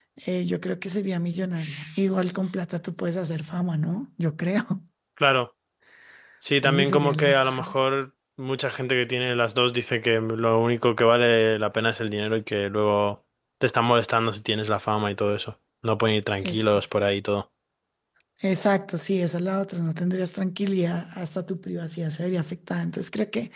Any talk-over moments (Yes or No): Yes